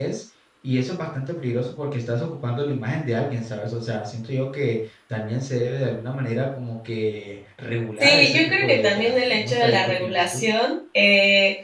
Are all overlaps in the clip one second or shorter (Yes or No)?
No